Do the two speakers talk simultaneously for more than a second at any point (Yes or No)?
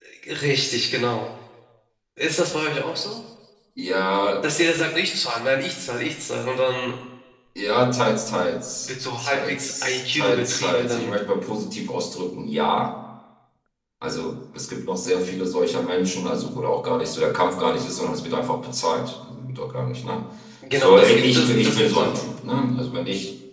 Yes